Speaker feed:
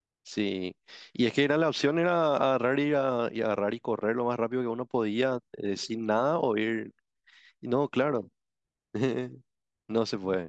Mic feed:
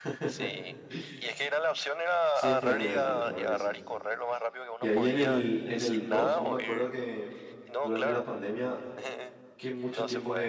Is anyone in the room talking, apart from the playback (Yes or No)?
Yes